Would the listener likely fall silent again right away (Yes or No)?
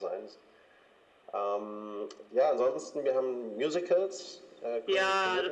No